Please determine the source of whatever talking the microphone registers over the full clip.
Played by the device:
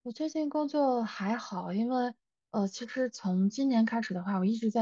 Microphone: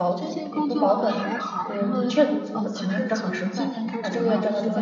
both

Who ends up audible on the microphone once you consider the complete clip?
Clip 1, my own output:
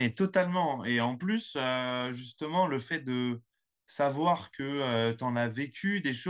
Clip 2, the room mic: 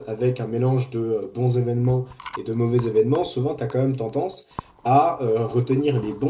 user only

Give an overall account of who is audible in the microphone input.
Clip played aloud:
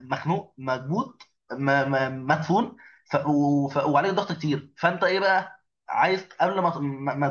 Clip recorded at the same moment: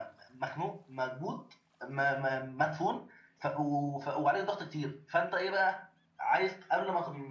echo only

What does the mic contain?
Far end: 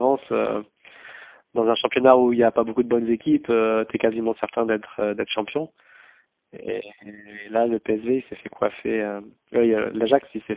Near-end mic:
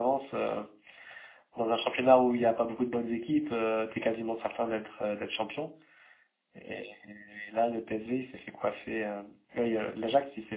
echo only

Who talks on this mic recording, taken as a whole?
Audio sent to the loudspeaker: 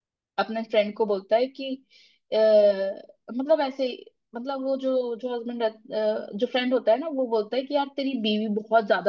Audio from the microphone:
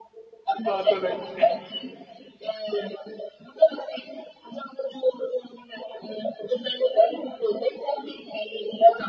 both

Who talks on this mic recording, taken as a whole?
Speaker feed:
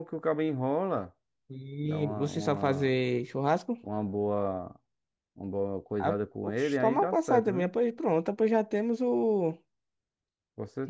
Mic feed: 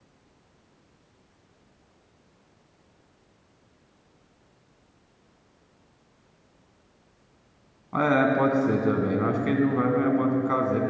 user only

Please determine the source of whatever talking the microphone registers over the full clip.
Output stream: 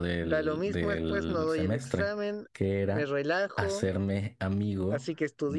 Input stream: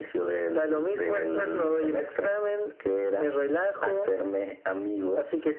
echo only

